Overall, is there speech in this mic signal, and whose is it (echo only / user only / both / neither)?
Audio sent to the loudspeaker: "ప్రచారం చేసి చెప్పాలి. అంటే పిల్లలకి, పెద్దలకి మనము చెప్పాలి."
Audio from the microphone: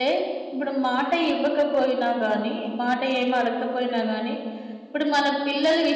user only